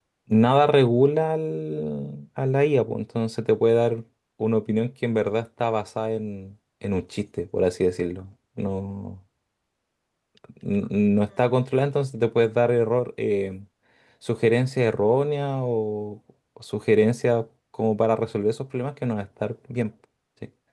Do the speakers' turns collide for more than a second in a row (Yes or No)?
No